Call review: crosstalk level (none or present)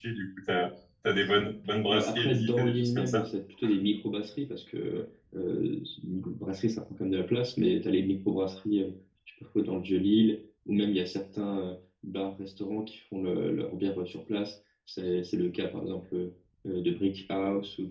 present